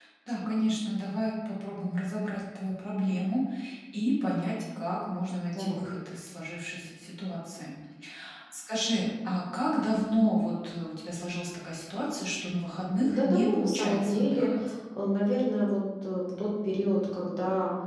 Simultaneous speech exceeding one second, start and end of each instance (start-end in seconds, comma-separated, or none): 13.0-14.5